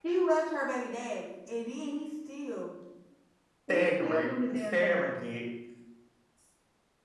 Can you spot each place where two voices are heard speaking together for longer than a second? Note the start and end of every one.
3.7-5.3

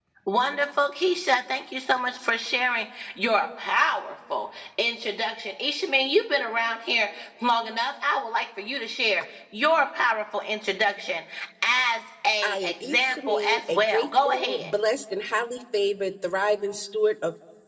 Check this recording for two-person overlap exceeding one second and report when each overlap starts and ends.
12.4-14.7

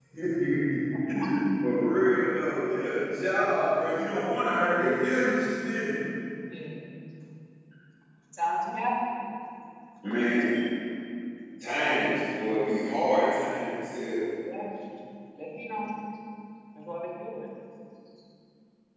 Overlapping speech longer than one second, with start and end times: none

